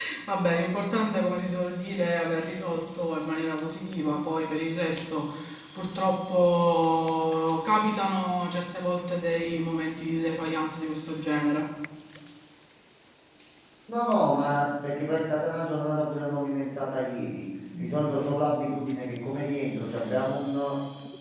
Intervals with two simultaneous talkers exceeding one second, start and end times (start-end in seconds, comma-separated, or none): none